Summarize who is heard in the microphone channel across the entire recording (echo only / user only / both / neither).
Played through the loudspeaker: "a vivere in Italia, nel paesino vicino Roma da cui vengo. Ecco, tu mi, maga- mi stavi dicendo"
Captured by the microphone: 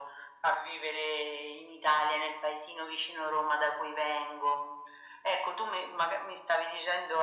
echo only